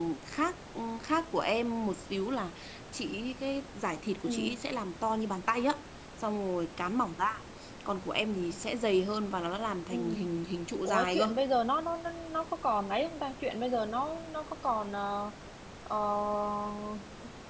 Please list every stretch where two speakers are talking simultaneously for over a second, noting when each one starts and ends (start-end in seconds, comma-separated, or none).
none